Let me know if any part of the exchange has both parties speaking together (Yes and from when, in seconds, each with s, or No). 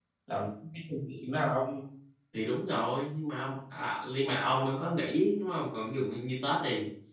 No